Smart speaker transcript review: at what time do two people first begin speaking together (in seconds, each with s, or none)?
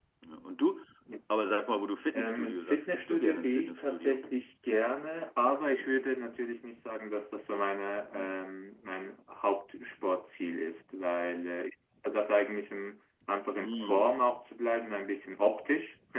2.1 s